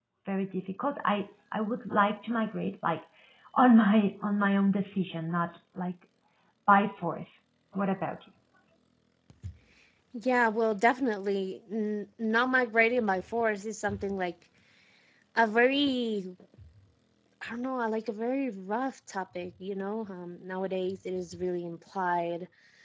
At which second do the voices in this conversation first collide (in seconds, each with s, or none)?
none